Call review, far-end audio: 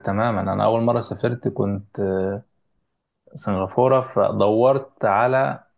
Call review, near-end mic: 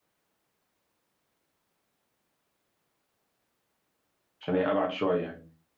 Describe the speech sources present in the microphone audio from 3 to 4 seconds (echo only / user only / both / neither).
neither